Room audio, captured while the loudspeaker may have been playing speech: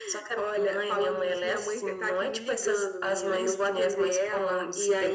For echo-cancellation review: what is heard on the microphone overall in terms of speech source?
both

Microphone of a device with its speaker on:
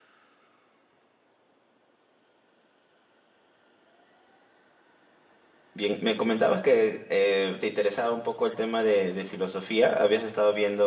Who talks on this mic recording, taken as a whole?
user only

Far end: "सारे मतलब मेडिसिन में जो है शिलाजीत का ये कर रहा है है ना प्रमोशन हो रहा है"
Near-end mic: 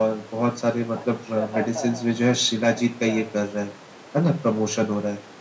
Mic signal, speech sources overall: both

